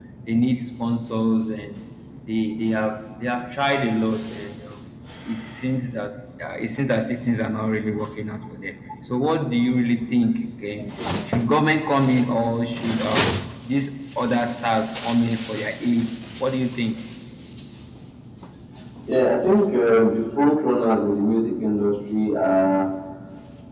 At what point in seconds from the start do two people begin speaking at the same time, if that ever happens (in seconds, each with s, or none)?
none